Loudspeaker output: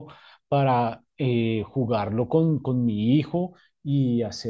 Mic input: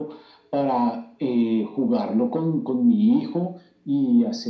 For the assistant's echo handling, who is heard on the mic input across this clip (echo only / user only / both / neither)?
echo only